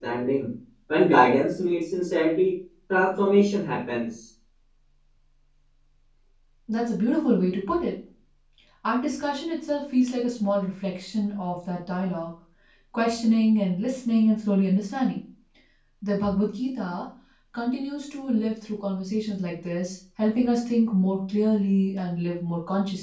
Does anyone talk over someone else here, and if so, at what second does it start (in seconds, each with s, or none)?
none